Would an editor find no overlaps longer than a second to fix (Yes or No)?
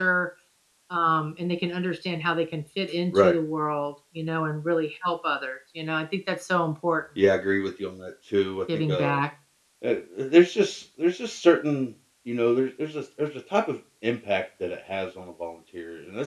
Yes